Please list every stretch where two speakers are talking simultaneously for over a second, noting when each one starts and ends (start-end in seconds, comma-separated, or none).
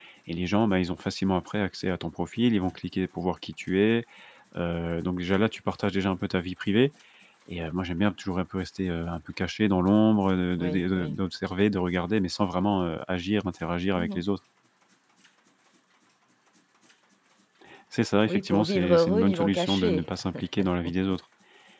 18.2-20.1